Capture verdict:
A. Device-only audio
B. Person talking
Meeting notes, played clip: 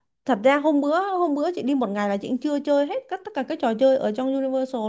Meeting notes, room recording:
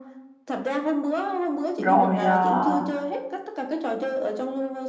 B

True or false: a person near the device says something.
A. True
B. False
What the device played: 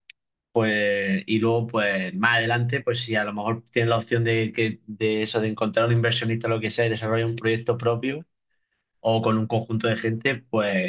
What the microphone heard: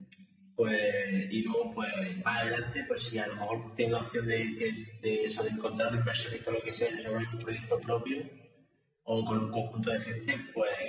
B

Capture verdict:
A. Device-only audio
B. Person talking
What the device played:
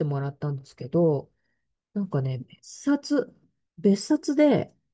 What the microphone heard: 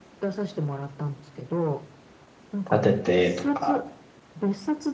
B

